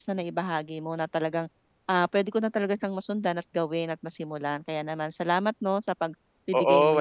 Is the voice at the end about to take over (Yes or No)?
Yes